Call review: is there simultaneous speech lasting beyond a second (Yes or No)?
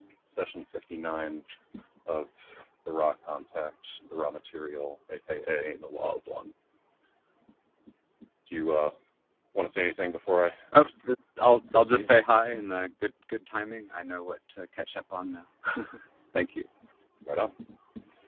No